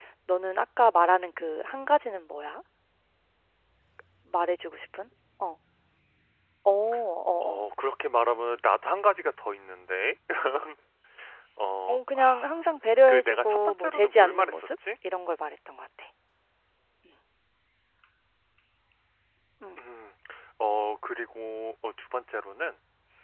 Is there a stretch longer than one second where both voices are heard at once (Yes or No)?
Yes